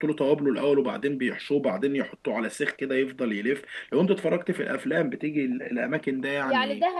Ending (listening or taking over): taking over